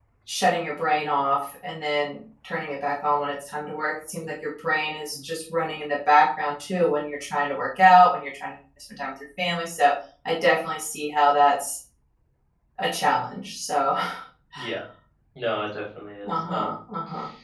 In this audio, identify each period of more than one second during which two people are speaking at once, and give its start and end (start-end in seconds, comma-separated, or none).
none